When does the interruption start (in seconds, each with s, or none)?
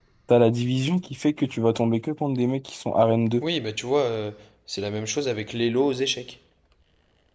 none